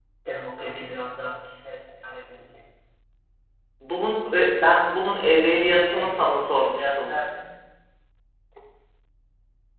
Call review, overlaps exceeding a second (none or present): present